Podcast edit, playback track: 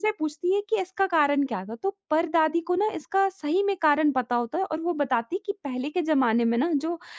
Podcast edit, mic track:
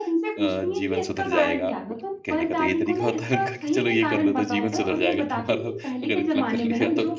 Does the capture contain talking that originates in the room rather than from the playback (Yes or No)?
Yes